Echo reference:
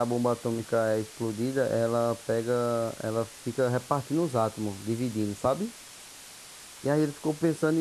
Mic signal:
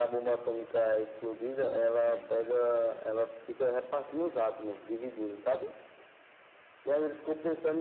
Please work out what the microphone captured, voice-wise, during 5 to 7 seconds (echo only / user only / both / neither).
echo only